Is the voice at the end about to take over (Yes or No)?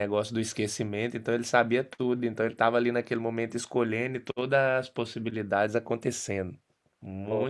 Yes